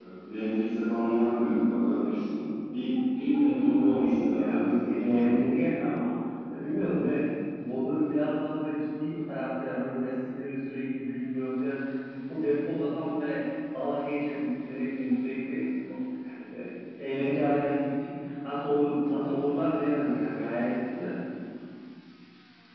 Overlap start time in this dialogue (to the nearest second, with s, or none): 3 s